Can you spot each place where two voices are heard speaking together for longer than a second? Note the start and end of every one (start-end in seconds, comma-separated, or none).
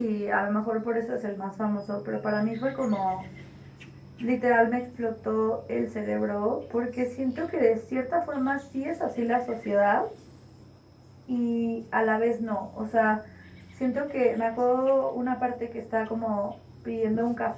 none